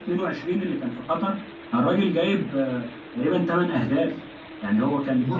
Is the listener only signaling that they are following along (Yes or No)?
Yes